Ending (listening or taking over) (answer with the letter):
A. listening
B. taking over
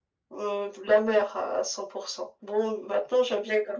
A